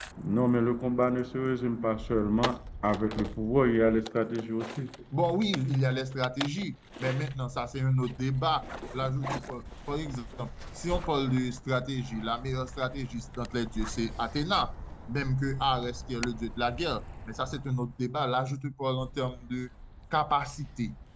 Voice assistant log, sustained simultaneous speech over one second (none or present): none